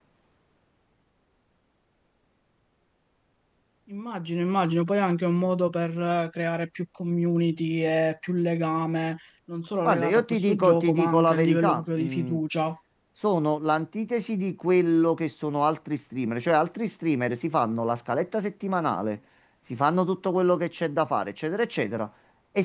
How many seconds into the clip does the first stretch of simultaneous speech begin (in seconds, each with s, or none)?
9.8 s